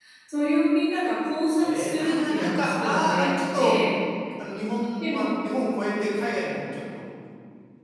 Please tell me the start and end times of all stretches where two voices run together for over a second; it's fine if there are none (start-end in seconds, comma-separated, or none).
1.6-3.8